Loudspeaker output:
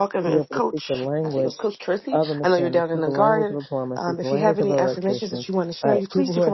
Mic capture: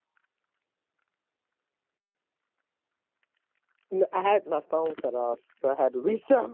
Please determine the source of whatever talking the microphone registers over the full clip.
user only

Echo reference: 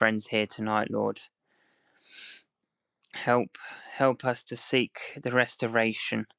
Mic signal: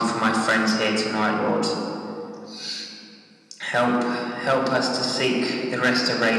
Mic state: echo only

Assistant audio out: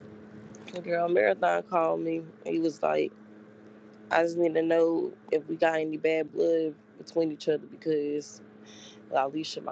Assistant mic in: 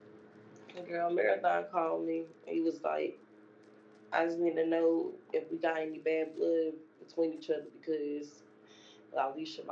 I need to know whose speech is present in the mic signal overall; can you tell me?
echo only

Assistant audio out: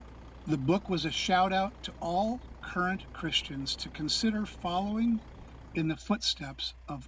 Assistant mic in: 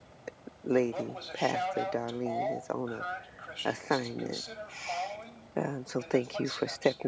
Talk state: both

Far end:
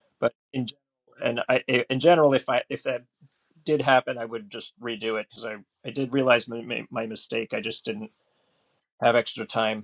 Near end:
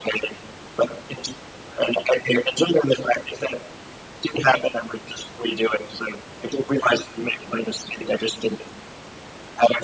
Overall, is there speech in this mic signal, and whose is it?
echo only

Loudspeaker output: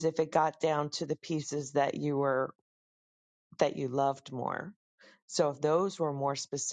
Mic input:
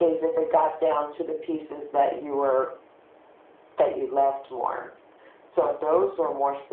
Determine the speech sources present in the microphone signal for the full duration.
echo only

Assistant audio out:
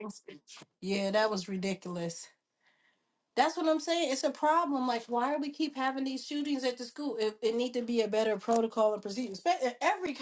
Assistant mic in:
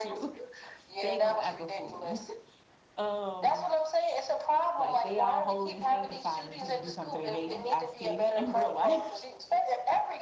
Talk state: both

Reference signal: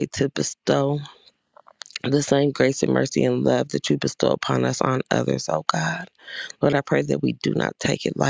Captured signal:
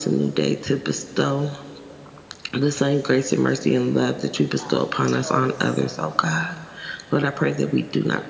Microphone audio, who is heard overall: both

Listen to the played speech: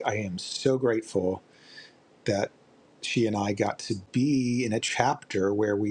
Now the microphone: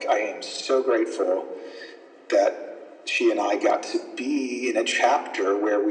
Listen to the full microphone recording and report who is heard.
echo only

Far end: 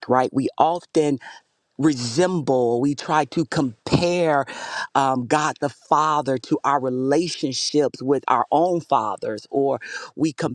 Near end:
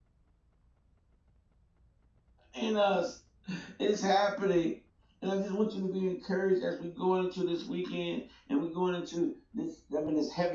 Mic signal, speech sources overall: user only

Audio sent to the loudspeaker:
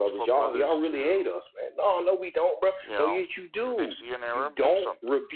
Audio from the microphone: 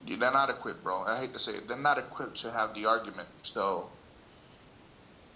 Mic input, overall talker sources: user only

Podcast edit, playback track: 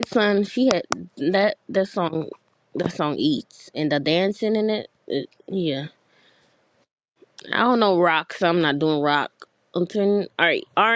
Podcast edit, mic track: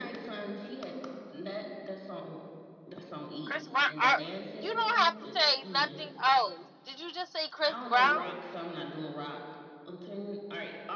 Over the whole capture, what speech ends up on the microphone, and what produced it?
both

